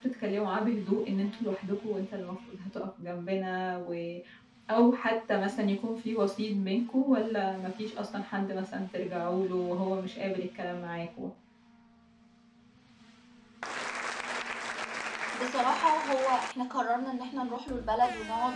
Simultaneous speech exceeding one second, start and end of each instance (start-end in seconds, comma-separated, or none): none